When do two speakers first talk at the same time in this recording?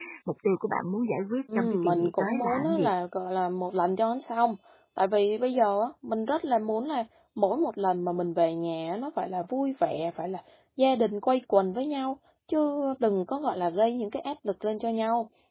1 s

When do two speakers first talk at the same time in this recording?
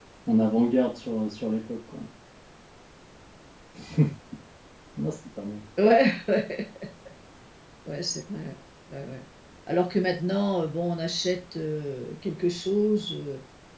none

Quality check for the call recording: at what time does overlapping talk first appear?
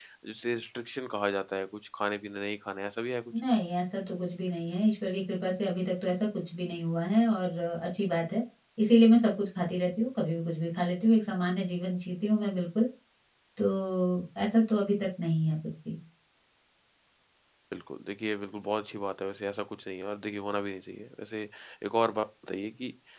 none

